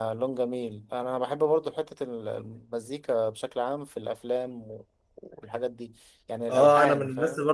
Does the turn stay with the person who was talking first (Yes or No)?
No